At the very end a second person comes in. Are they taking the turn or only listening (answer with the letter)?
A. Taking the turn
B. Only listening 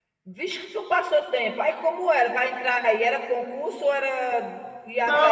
A